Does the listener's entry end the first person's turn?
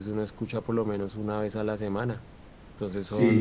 Yes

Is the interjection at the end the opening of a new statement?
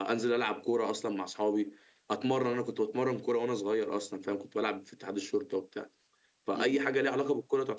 No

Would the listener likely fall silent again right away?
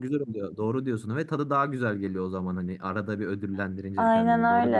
No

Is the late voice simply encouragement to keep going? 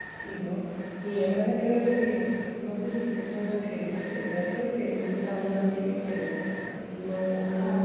Yes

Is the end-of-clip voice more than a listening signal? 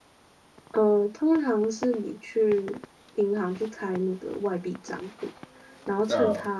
No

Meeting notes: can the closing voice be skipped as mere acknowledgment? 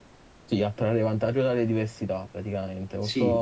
Yes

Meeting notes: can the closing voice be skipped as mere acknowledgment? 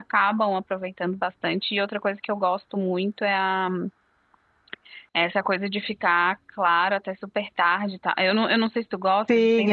No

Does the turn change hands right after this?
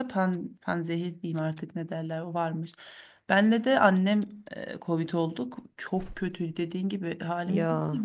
No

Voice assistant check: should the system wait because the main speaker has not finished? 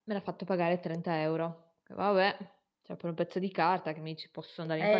No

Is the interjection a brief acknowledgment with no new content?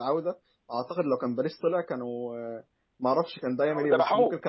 Yes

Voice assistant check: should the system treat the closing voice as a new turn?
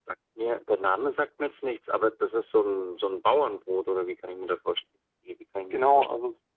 Yes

